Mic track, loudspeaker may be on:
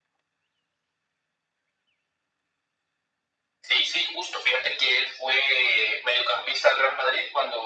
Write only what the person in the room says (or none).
none